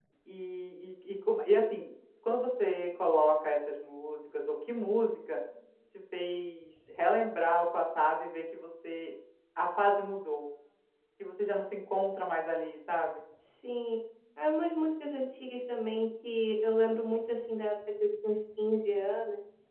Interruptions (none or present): none